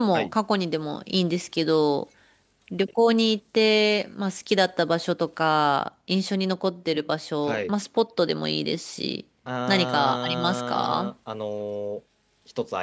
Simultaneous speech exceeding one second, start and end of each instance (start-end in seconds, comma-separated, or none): 9.7-11.1